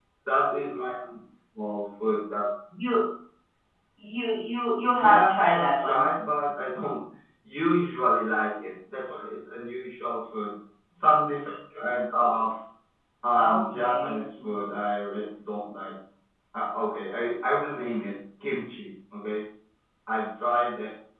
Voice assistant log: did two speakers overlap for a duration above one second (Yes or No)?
Yes